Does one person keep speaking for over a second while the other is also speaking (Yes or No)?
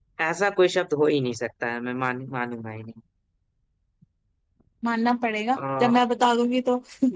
No